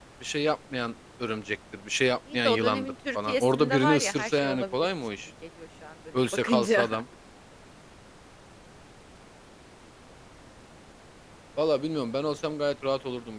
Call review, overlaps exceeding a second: present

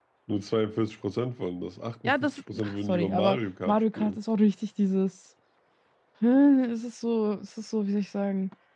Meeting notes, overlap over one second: present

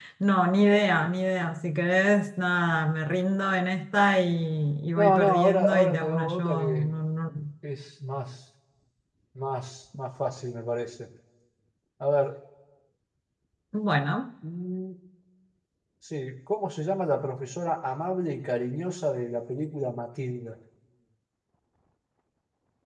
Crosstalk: present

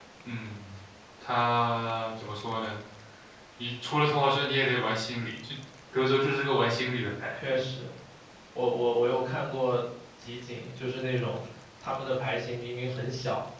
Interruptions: none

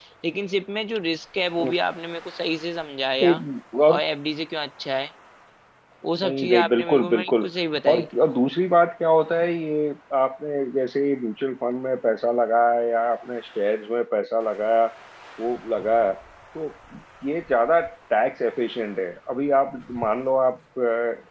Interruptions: present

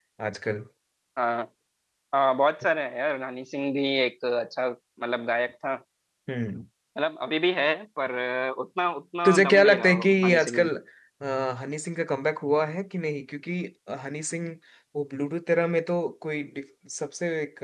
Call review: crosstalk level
present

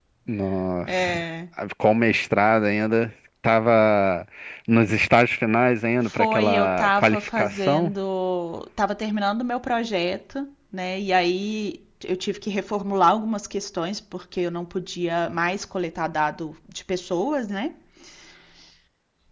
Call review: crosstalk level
present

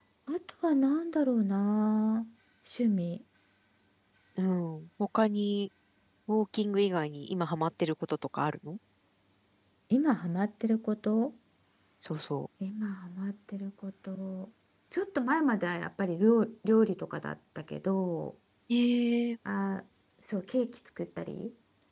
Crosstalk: none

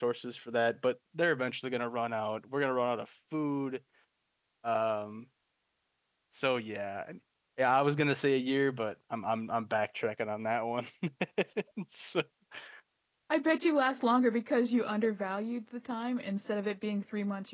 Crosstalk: none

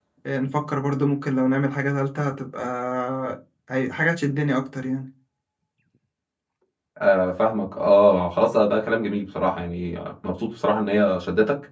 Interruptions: none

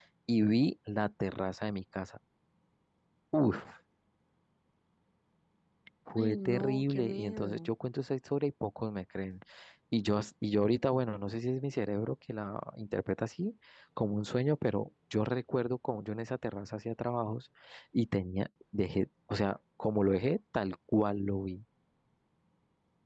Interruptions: present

